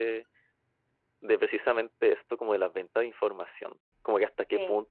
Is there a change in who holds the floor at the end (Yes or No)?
No